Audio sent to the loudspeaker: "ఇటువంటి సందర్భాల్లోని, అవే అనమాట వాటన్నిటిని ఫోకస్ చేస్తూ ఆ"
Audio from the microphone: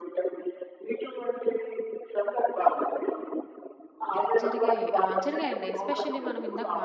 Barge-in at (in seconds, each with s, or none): 4.4 s